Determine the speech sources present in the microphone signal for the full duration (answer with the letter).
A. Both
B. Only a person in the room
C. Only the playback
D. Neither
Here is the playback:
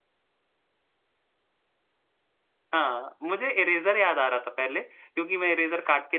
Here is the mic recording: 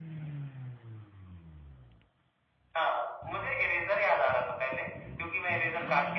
C